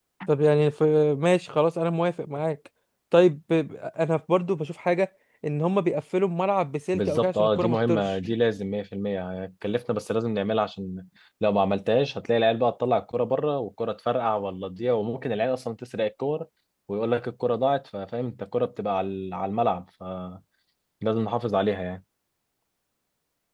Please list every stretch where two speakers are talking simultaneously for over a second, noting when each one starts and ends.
6.9-8.2

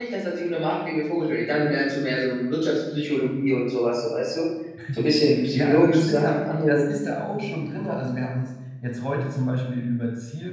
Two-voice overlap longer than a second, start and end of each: 5.5-6.9

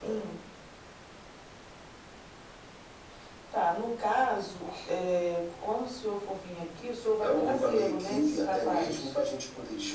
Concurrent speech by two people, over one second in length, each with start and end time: 7.2-9.1

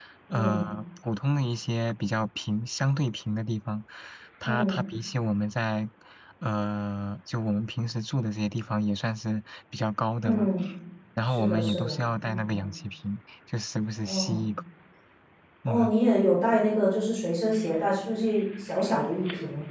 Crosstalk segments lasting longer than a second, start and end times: 11.2-12.7

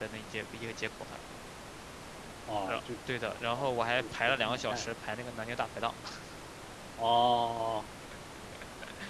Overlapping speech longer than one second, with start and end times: 3.6-4.9

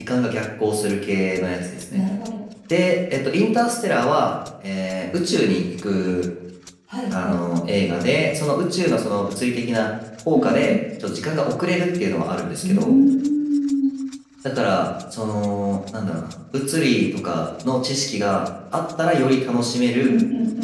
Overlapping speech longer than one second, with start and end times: none

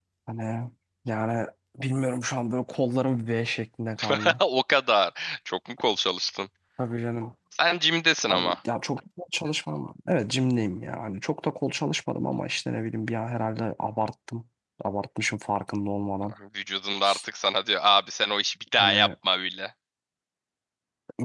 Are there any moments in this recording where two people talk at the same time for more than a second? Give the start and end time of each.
none

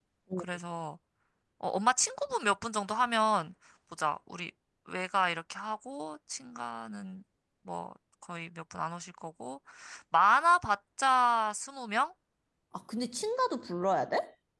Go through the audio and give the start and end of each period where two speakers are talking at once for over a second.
none

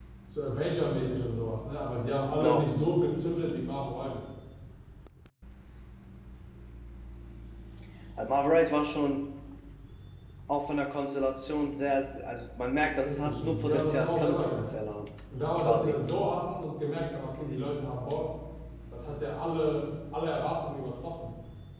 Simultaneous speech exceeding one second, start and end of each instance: 13.1-14.8

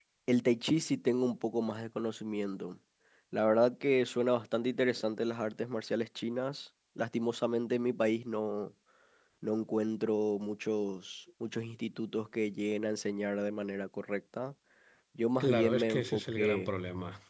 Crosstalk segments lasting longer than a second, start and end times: 15.4-16.7

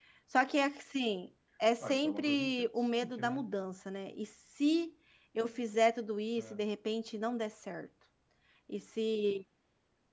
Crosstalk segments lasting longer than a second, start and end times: 1.8-3.5

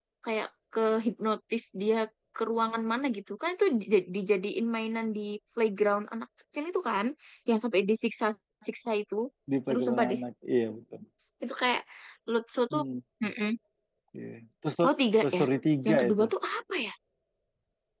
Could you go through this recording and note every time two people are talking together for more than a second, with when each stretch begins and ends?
none

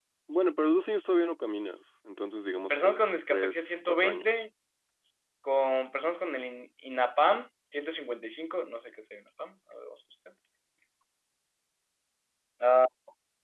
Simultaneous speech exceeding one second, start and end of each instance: 2.7-4.4

